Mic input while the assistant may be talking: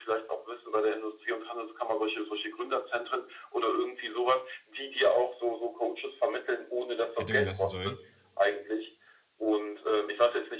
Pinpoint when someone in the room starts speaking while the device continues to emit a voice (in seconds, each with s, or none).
7.1 s